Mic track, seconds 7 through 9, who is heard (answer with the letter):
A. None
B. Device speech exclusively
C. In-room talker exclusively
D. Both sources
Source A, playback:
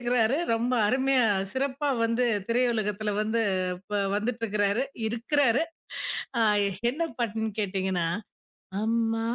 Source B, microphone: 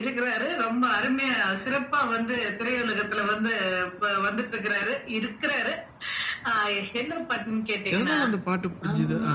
D